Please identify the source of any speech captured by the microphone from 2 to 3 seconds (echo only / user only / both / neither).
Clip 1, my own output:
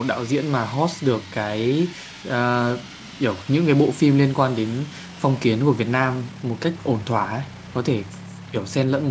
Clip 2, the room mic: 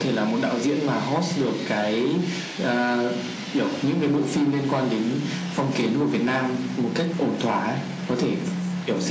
echo only